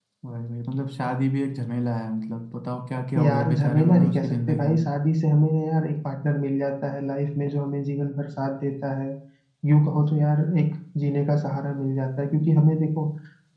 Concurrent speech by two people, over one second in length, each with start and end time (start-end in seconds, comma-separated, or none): 3.2-4.8